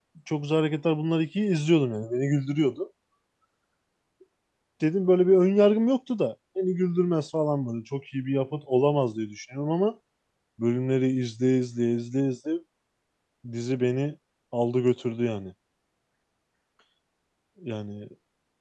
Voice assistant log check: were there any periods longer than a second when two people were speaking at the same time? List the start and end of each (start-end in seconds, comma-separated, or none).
none